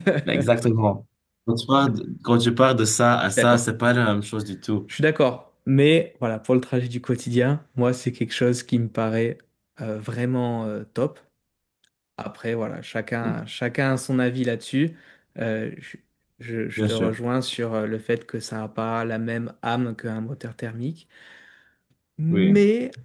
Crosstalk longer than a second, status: none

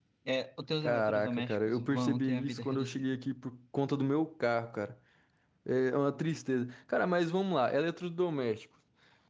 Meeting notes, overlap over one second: present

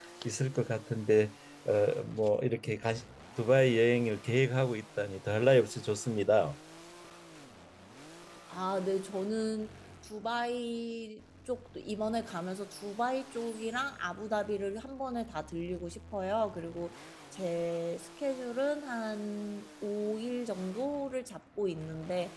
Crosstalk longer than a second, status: none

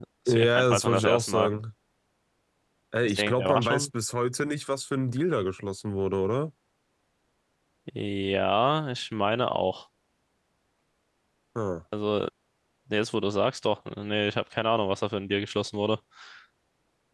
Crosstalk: present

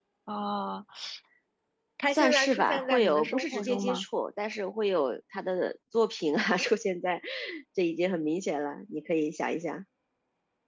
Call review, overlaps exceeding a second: present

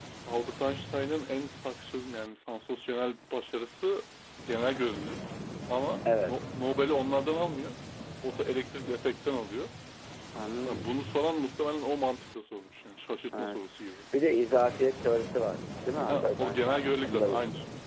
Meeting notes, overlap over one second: present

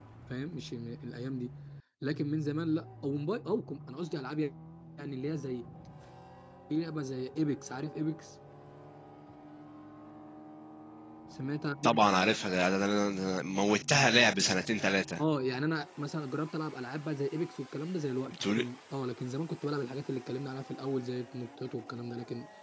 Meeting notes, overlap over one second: none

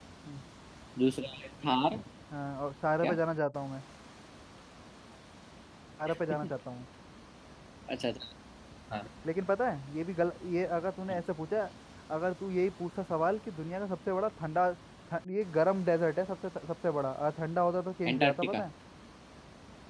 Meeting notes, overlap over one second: none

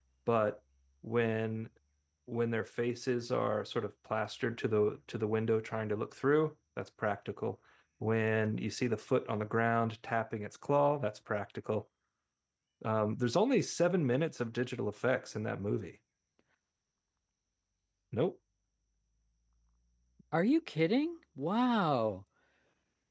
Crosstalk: none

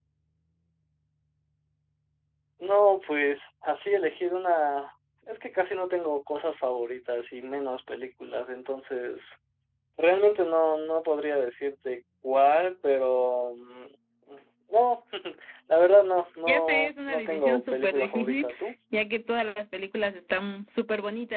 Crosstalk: present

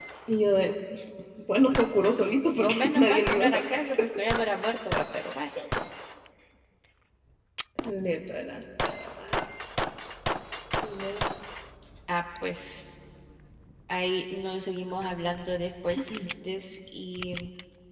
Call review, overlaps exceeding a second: present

